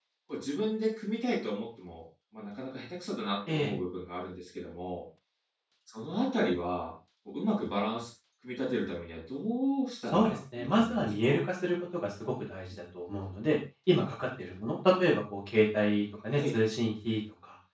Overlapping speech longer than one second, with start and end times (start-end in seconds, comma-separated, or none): 10.1-11.4